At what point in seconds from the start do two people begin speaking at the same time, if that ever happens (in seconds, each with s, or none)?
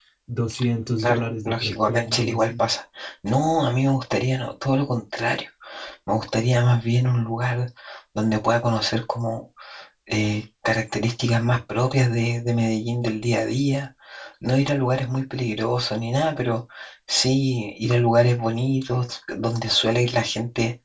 1.0 s